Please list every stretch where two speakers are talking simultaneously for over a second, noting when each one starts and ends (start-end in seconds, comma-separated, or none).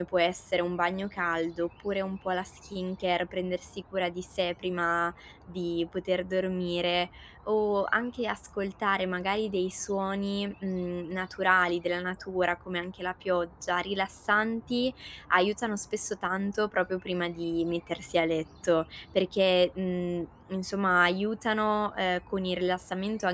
none